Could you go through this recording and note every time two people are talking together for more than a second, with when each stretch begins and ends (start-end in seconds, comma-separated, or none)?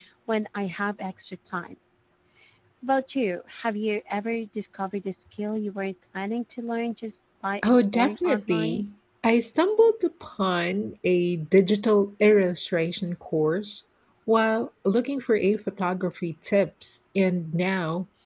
7.6-8.8